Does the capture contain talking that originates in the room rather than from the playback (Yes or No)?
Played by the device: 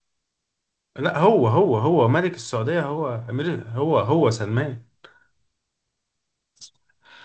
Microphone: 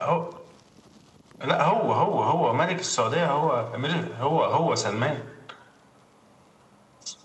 No